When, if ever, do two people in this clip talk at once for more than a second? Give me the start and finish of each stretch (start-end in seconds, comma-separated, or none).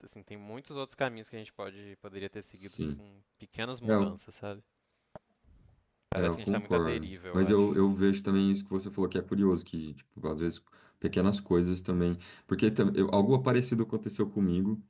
6.2-7.6